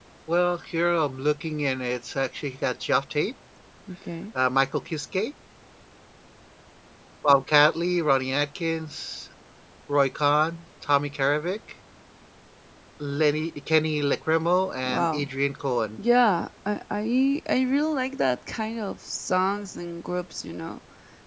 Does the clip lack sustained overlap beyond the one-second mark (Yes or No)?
Yes